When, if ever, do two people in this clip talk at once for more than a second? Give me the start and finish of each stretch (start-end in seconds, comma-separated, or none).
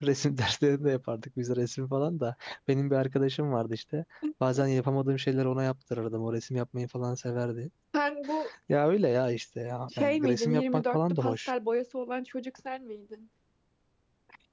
10.0-11.5